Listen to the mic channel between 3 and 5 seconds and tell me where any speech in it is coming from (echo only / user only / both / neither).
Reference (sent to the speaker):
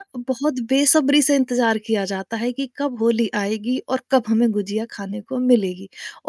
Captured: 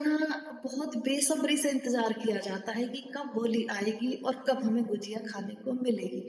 echo only